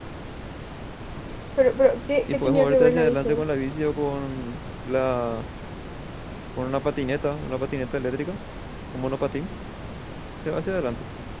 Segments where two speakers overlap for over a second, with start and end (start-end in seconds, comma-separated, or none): 2.2-3.4